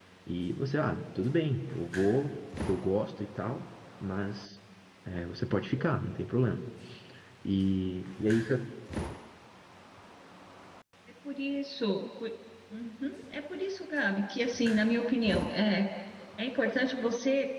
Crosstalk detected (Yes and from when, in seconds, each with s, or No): No